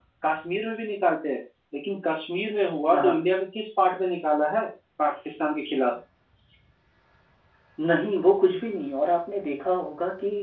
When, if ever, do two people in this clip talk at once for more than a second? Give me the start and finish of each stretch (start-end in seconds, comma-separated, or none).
none